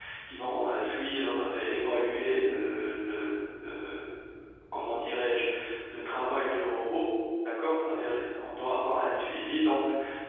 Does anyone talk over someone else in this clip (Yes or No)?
No